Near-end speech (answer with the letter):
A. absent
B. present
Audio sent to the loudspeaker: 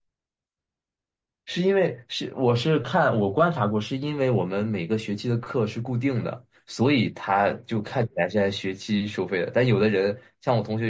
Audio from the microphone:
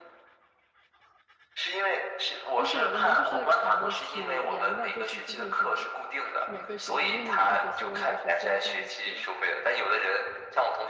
B